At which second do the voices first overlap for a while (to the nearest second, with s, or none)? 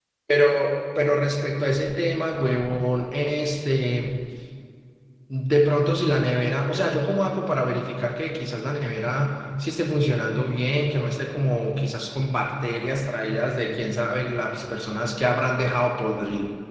none